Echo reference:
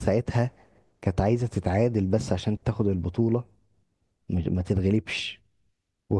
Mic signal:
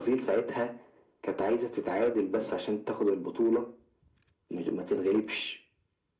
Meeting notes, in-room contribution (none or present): none